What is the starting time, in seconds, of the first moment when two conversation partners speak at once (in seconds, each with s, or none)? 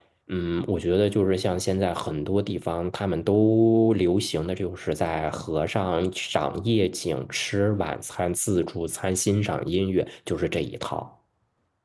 none